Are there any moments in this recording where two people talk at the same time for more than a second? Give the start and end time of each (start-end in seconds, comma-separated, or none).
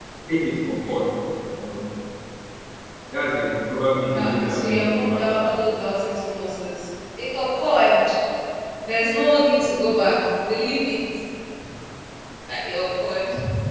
4.1-5.6